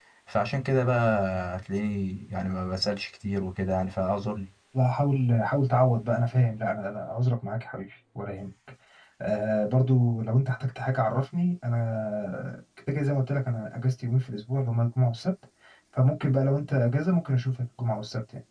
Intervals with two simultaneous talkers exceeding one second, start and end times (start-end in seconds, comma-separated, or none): none